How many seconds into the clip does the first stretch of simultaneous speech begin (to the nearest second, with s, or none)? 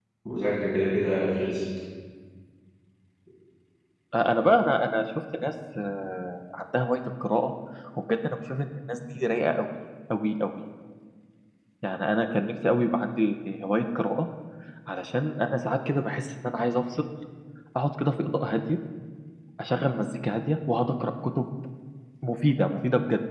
none